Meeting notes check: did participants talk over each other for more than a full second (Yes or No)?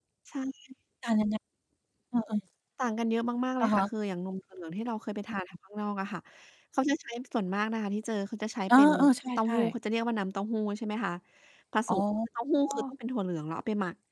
No